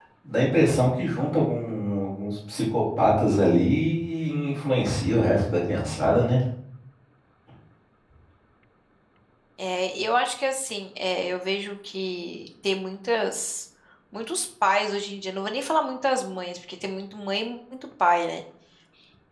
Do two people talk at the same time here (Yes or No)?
No